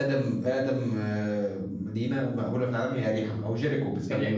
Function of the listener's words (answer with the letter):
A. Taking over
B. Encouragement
A